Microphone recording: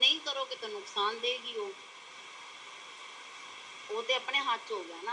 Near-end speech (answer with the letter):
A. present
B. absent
B